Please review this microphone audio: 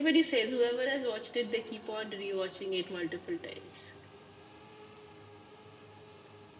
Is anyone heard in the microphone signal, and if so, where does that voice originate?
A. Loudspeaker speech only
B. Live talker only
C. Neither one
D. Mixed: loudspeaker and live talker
A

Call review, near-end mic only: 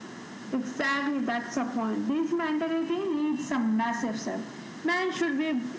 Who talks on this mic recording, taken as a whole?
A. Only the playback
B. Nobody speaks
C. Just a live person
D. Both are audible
A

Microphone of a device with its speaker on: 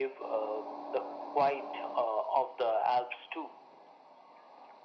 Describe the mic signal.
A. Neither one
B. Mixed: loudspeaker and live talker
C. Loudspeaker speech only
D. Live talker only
C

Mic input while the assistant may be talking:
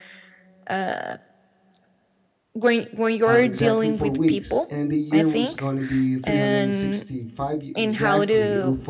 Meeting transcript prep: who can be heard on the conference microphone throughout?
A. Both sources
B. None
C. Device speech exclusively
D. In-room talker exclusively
A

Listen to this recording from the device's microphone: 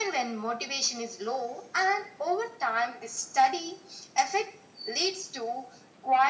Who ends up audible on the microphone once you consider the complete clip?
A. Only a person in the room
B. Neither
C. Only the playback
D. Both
C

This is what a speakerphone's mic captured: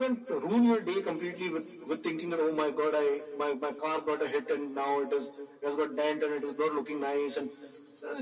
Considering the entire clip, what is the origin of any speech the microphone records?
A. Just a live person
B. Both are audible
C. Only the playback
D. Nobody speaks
C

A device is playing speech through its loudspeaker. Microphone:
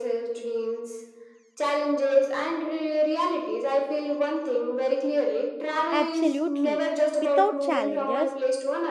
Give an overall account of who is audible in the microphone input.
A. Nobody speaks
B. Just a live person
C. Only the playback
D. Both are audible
D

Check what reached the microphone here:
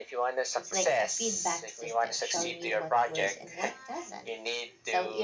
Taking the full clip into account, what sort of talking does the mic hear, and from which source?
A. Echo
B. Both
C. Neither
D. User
B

